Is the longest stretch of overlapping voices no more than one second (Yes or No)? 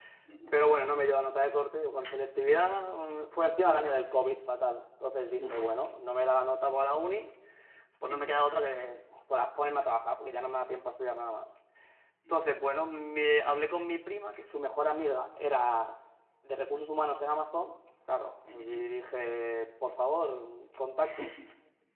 Yes